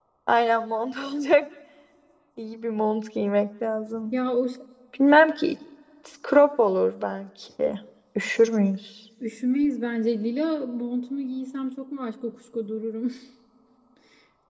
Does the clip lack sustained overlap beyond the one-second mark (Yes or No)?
Yes